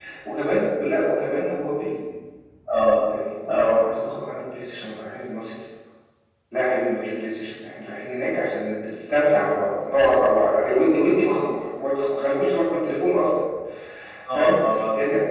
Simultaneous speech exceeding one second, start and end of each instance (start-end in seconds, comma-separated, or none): none